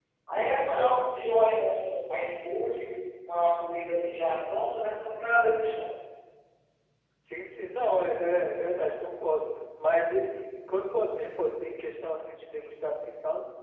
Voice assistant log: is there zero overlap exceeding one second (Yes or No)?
Yes